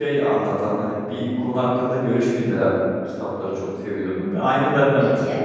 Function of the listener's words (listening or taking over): listening